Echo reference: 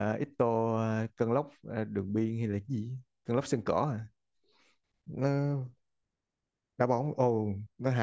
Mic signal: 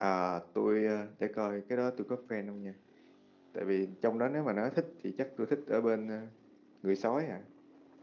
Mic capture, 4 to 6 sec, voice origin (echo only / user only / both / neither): user only